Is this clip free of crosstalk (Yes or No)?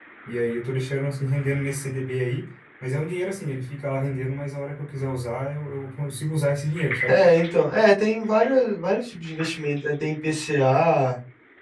Yes